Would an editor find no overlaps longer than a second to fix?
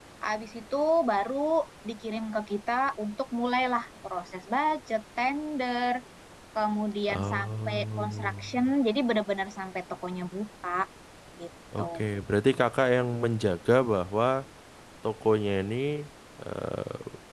No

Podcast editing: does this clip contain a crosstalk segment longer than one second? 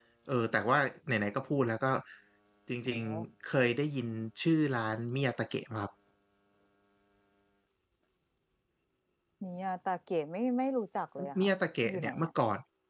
No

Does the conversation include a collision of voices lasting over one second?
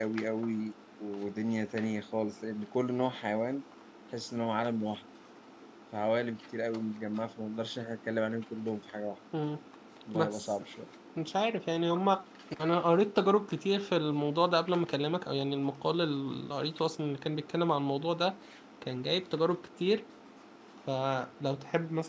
No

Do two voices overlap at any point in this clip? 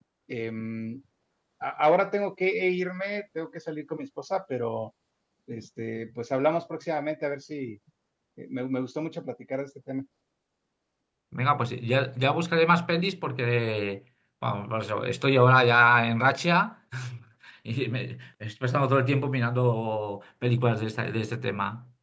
No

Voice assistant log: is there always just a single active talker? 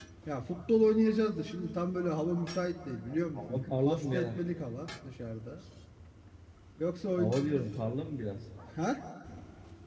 No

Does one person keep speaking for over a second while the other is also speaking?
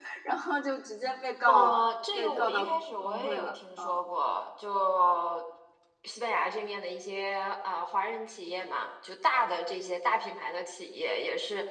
Yes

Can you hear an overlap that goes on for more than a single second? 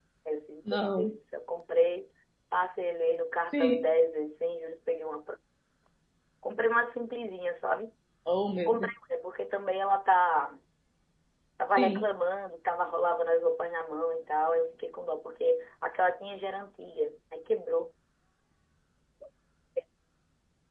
No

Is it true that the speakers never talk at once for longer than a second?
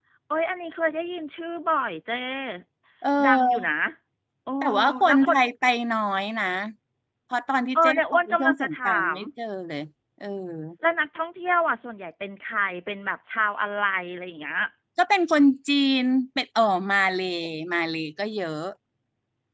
No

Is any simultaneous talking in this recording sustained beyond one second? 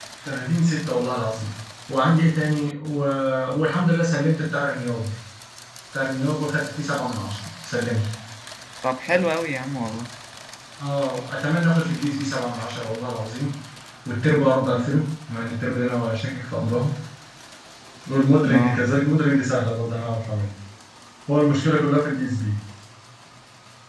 No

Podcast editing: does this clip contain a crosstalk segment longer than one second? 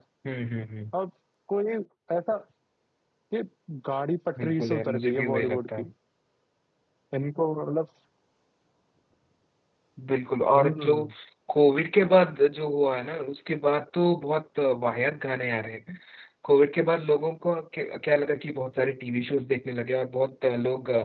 Yes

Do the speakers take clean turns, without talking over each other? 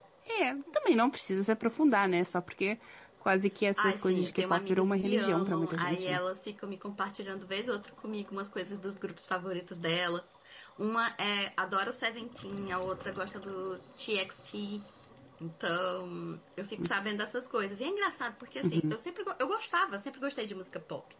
No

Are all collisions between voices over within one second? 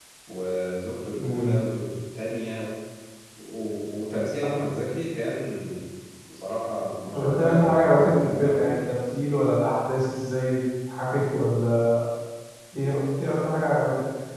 No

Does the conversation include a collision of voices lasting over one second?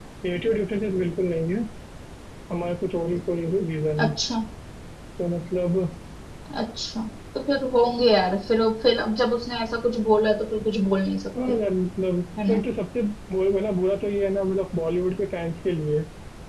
No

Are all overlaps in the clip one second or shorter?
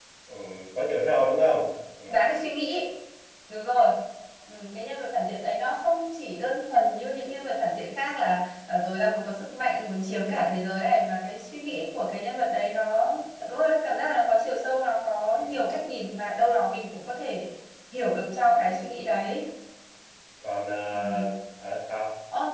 Yes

